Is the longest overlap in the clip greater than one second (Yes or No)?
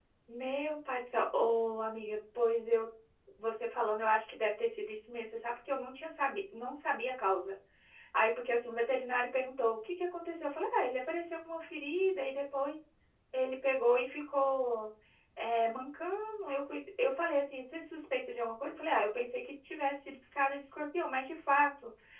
No